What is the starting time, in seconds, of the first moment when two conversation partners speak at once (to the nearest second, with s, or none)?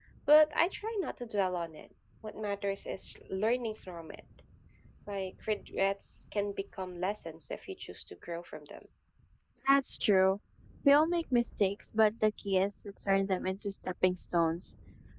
none